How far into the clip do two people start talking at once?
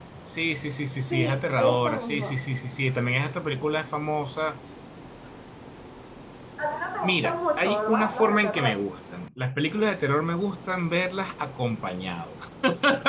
1 s

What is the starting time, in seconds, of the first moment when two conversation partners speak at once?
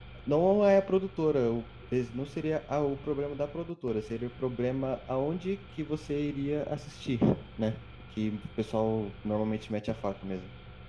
none

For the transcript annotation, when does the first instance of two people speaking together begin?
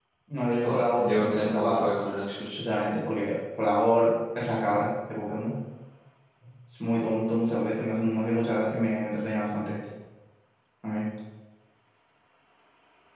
1 s

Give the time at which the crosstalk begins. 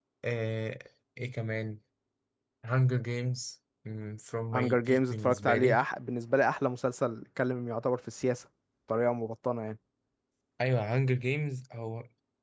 5 s

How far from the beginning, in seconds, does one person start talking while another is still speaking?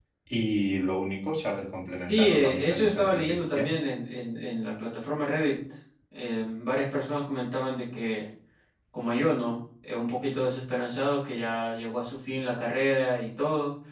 2 s

